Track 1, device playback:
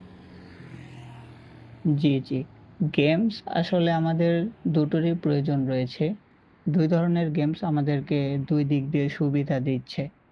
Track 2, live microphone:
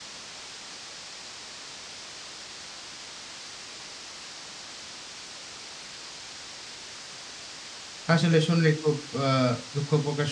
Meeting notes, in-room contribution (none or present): present